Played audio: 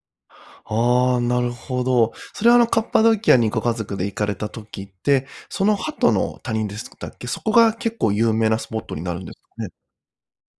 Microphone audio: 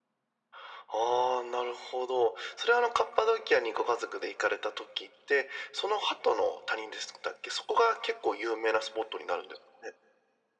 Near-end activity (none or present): none